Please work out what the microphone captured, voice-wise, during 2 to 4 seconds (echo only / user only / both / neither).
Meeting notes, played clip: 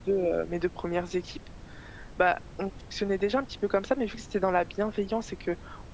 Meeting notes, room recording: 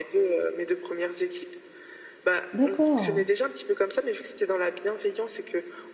both